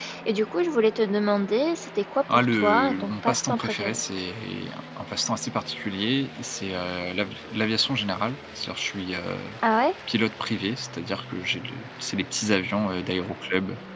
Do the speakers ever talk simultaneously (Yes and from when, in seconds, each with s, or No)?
Yes, from 2.3 s